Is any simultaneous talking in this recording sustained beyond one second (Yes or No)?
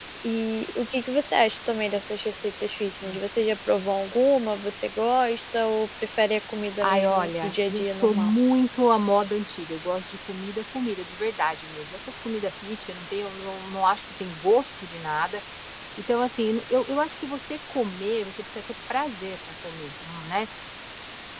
Yes